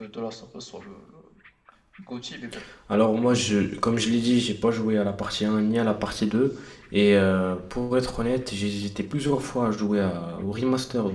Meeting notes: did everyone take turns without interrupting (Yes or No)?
Yes